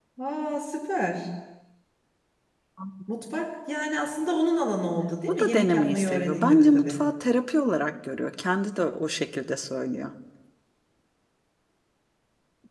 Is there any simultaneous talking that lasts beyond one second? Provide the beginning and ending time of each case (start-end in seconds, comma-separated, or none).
5.4-7.0